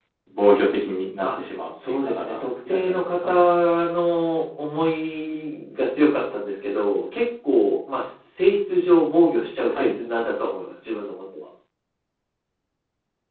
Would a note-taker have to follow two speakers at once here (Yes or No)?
Yes